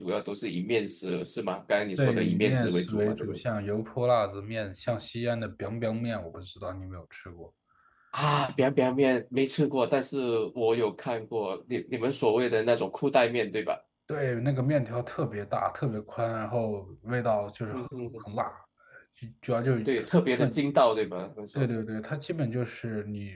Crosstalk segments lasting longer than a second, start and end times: 2.0-3.4

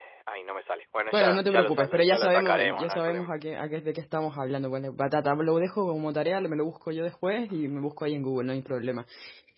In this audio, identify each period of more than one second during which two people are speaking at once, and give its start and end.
1.1-3.3

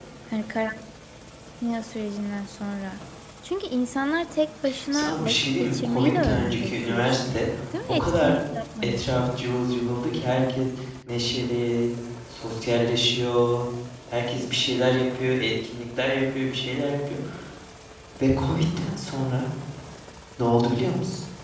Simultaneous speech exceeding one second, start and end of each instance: 4.9-7.4

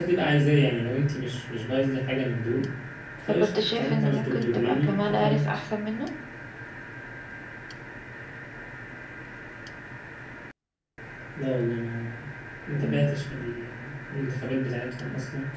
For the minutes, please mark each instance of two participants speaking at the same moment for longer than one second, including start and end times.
3.4-5.6

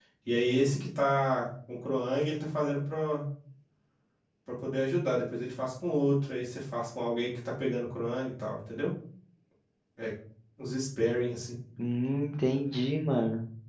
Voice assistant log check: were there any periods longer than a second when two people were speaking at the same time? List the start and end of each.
none

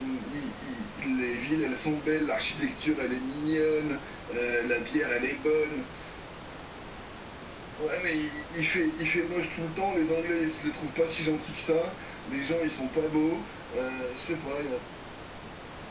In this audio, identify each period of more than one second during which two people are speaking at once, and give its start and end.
none

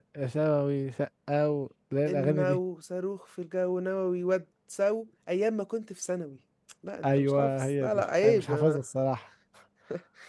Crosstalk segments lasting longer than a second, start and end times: 7.0-8.8

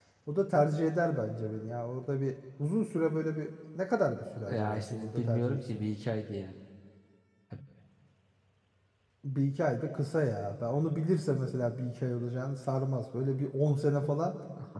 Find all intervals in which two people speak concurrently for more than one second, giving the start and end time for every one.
4.5-5.8

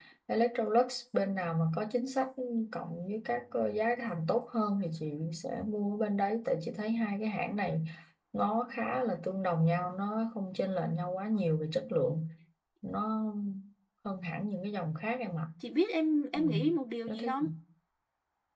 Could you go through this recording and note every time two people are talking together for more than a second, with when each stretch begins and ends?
none

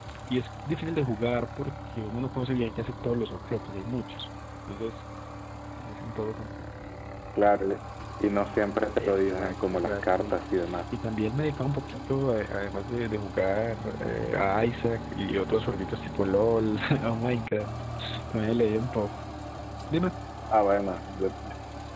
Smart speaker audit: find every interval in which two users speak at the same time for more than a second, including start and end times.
9.0-10.4

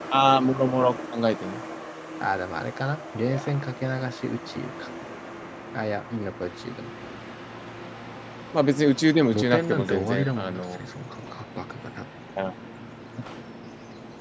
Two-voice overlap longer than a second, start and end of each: 9.3-10.8

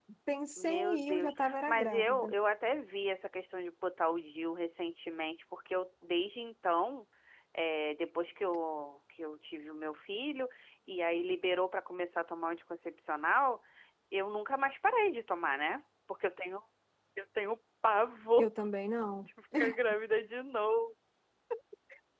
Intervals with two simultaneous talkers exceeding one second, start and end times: 0.6-2.3

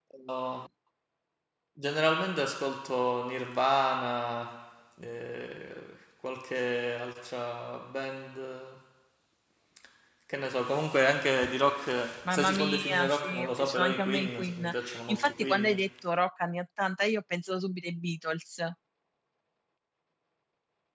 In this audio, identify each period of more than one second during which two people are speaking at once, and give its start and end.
12.2-15.9

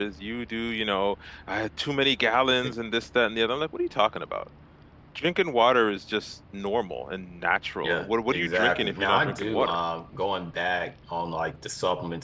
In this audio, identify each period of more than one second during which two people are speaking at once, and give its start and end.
7.8-9.8

